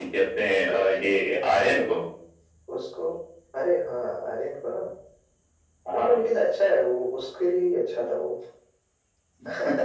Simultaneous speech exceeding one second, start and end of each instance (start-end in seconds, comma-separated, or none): 0.5-1.9